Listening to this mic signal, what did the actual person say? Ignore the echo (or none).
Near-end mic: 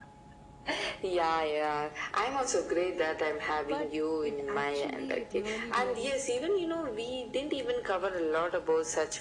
But it actually really, really